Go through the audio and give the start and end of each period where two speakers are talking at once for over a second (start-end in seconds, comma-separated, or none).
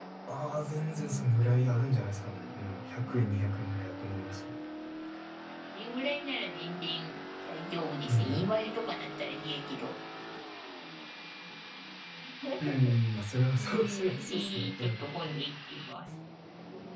13.6-15.0